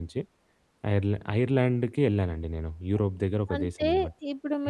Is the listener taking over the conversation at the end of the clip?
Yes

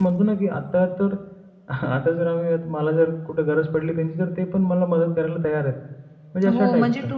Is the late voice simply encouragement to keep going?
No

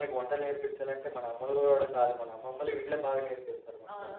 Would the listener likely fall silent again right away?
No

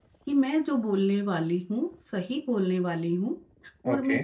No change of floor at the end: Yes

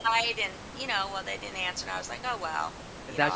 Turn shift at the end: Yes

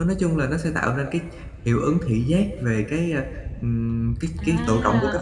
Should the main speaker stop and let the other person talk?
Yes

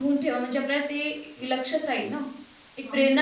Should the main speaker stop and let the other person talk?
No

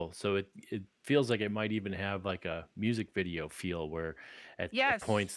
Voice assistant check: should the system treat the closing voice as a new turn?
No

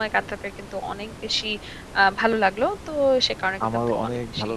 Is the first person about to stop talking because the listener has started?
Yes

